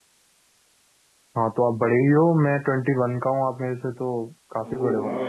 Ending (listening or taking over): taking over